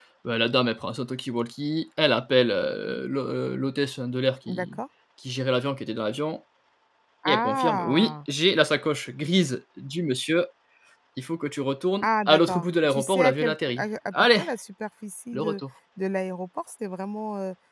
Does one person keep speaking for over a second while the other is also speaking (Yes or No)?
Yes